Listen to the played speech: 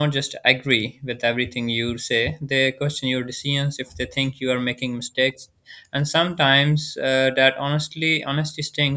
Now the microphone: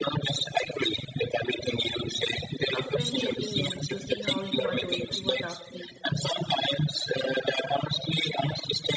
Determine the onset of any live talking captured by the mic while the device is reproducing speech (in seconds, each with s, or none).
2.7 s